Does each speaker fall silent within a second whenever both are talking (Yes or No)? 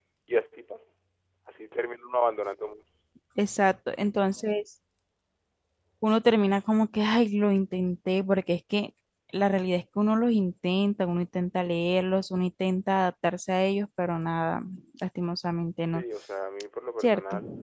Yes